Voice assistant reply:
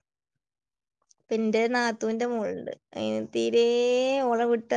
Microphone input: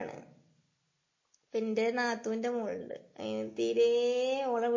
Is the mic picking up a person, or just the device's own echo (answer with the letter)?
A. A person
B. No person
B